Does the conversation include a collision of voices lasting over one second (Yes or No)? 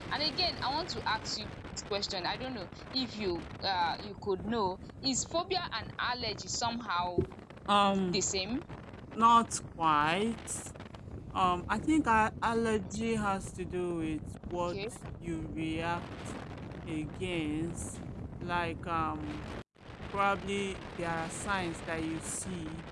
No